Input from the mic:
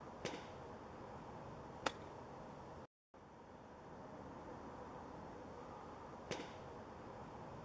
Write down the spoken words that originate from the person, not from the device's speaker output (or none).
none